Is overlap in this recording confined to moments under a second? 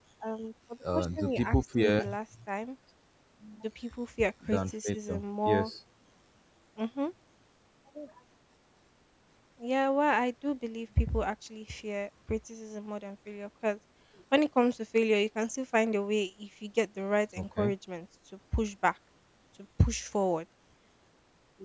No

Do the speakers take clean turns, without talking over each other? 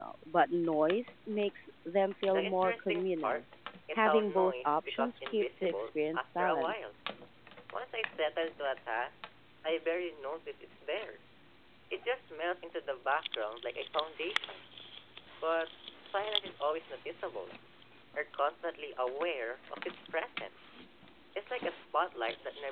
No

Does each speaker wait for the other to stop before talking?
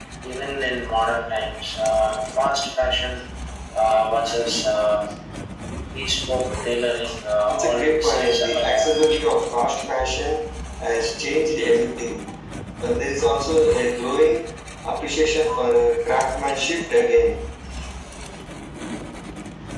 No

